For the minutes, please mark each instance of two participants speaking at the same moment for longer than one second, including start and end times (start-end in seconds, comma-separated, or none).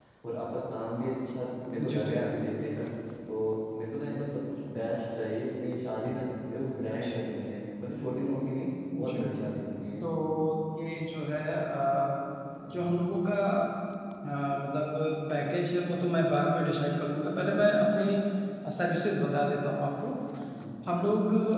none